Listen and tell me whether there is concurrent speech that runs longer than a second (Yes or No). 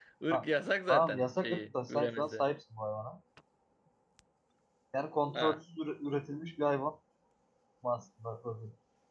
Yes